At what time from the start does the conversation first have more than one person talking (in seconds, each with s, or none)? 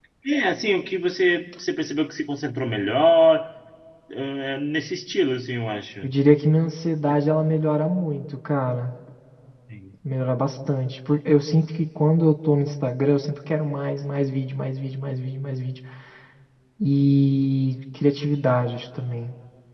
none